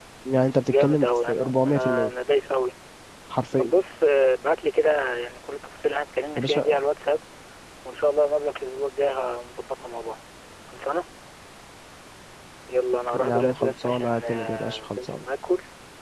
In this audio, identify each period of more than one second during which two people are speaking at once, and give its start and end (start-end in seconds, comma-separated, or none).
0.7-2.1, 13.1-15.2